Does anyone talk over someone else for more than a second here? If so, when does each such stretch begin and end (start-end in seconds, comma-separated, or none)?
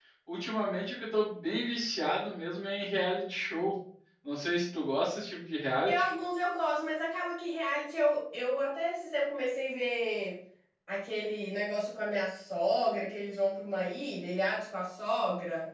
none